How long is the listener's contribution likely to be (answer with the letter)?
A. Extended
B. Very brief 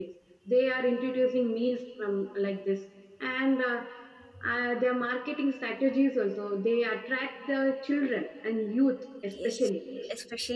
A